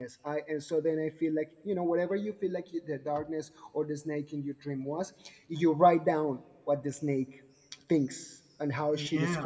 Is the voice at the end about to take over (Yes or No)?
No